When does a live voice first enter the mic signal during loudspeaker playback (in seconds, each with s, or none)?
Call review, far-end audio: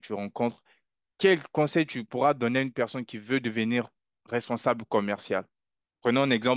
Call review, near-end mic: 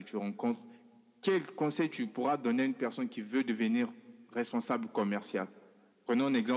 none